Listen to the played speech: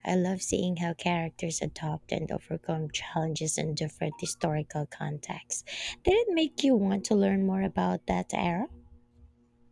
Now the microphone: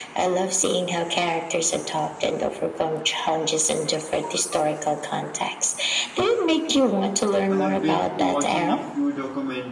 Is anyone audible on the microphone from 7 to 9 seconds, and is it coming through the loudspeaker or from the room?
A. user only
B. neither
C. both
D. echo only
C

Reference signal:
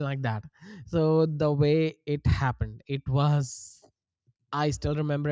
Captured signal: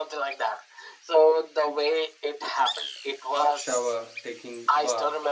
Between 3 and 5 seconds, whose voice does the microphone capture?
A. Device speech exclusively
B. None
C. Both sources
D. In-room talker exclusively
C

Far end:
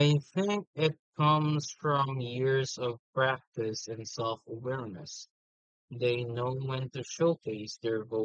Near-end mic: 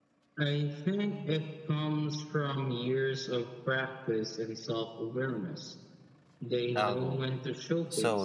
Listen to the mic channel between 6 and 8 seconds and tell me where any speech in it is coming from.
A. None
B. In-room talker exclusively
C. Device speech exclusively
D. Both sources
D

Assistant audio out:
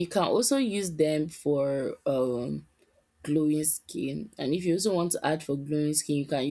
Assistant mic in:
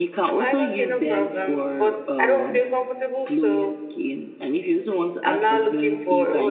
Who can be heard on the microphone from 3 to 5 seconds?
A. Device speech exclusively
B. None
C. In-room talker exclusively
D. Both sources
D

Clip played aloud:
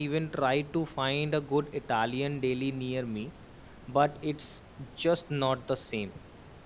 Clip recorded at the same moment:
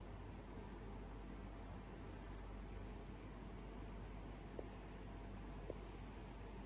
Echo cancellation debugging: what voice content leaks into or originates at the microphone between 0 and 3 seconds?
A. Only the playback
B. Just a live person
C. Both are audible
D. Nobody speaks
D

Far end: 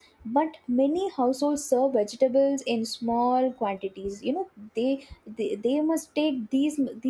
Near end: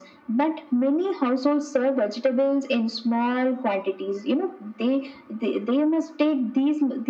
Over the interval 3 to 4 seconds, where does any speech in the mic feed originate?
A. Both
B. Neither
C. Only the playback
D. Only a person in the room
C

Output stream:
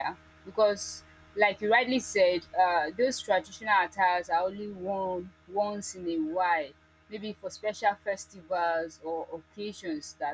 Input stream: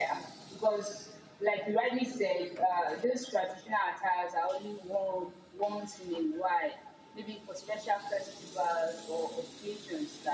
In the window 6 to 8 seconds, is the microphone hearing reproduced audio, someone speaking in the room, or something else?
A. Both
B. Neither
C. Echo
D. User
C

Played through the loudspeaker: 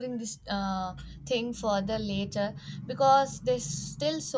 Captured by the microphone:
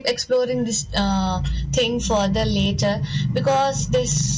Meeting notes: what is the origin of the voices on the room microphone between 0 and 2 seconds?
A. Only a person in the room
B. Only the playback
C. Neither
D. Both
B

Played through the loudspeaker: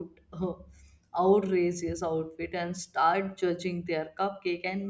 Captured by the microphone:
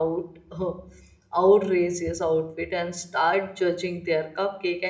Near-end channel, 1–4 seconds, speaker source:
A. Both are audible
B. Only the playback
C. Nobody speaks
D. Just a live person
B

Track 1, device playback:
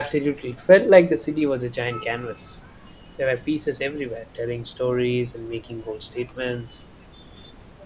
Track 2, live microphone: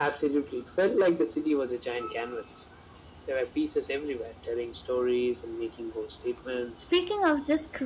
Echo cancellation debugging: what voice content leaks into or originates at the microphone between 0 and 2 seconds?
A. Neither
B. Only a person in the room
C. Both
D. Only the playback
D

